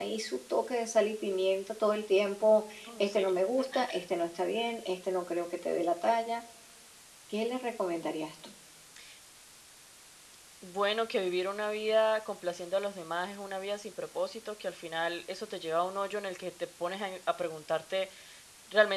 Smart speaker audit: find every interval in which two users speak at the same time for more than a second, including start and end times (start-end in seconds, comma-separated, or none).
none